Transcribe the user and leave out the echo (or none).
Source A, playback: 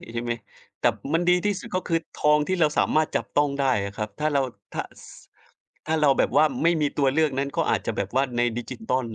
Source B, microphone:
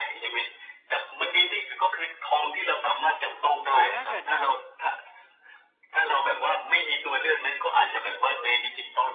แล้วถ้าเกิดแบบ